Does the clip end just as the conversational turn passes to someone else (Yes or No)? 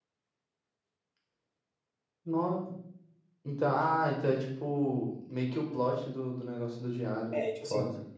Yes